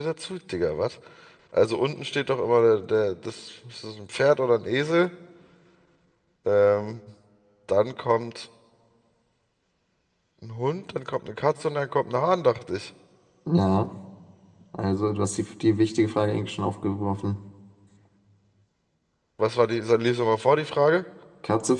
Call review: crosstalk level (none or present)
none